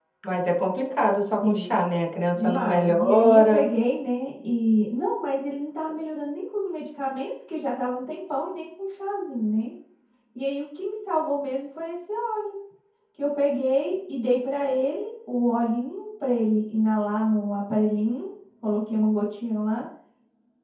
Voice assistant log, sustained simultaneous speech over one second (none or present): present